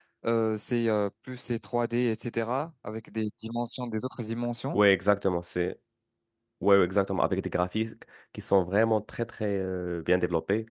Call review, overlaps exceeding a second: none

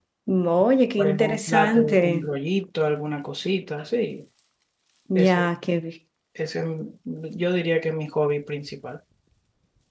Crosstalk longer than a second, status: present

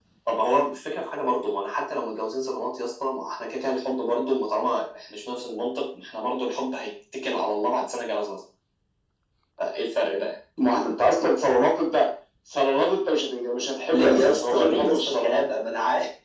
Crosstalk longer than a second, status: present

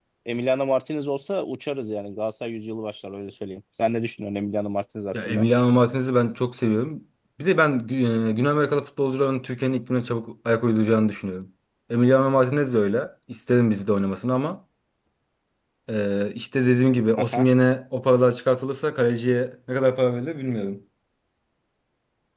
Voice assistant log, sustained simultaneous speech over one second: none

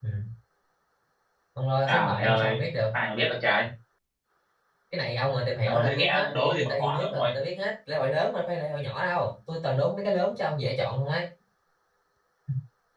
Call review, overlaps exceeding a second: present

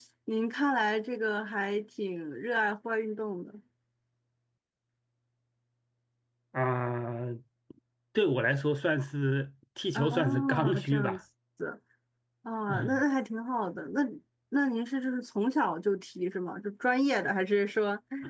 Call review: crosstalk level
present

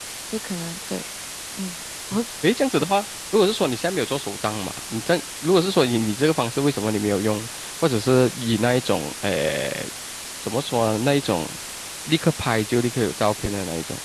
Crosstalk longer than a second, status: none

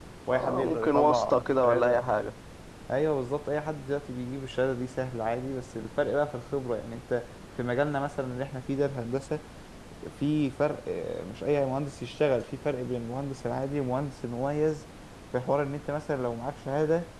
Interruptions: present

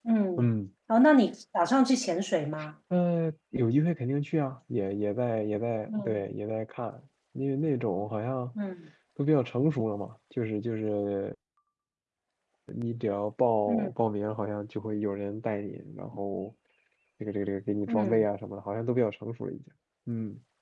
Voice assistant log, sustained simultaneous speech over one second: none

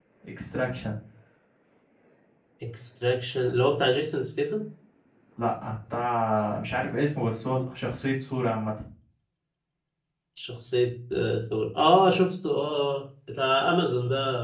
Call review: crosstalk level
none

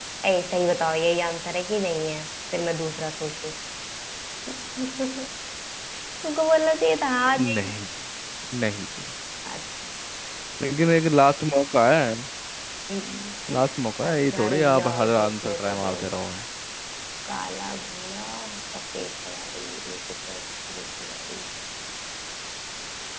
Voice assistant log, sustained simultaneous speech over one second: present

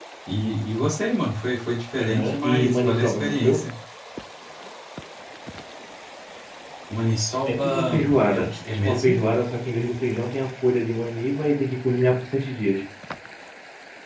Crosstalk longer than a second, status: present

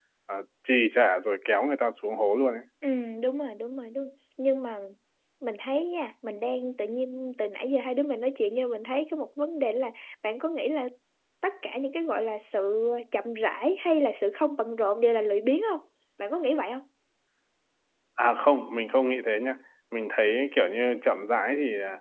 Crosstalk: none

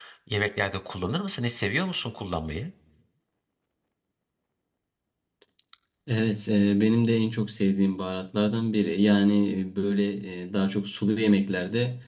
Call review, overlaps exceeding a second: none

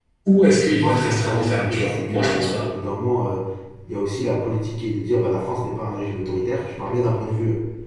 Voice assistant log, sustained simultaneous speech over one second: present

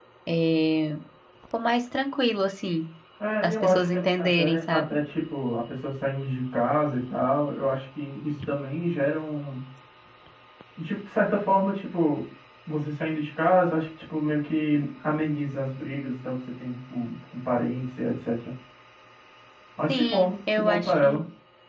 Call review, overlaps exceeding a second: present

